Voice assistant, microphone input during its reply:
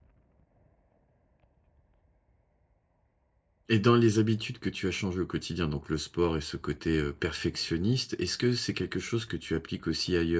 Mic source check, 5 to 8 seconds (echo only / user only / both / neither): user only